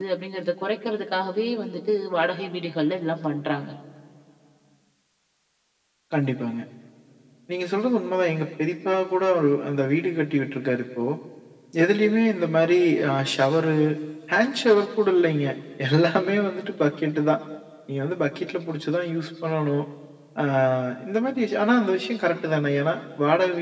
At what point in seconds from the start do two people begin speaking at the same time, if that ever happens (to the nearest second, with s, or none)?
none